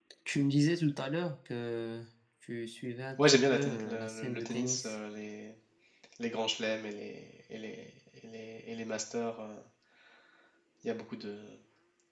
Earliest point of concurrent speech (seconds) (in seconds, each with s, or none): 3.2 s